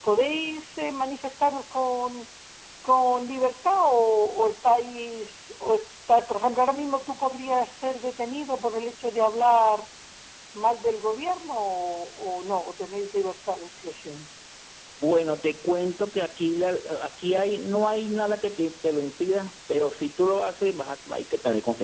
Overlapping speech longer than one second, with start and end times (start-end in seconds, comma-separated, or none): none